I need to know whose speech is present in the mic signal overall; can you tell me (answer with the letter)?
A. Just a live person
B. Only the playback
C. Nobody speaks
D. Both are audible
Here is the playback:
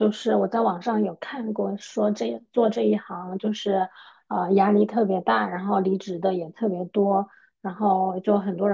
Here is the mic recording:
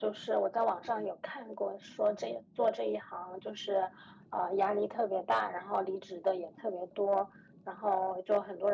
B